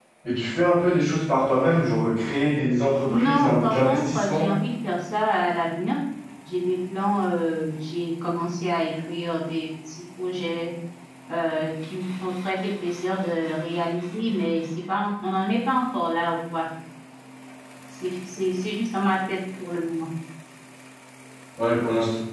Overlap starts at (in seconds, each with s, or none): 3.1 s